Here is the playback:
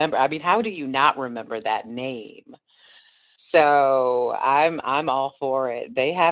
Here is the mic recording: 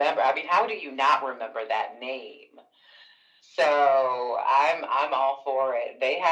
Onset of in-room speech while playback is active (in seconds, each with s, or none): none